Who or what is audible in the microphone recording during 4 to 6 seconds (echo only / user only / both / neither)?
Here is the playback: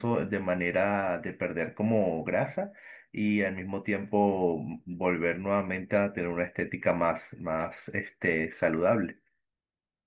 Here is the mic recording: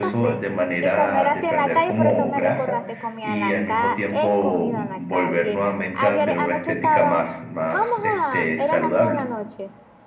both